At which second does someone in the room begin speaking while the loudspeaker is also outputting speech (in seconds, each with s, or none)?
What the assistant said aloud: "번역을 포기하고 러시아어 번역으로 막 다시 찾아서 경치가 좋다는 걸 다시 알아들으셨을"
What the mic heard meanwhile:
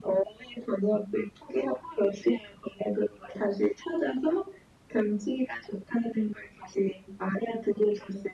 none